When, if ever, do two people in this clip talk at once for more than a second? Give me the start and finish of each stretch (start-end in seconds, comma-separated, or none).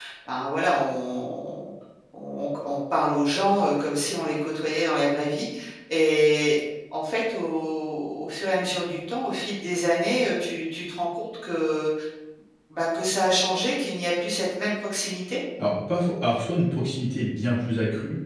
none